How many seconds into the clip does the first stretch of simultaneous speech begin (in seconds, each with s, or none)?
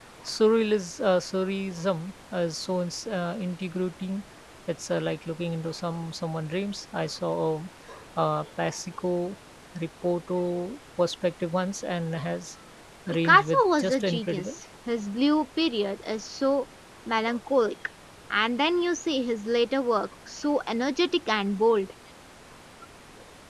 13.2 s